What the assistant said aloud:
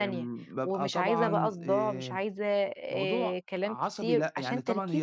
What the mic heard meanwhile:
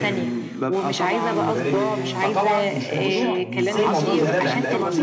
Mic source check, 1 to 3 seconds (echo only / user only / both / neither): both